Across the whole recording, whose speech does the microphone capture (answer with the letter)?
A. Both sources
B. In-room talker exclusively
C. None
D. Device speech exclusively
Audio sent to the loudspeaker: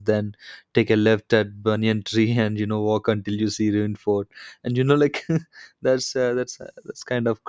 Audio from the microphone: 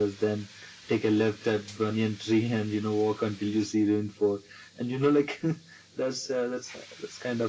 D